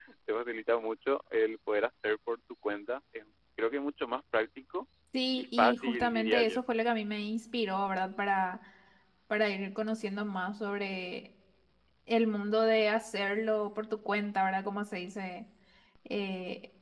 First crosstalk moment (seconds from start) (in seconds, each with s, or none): 5.4 s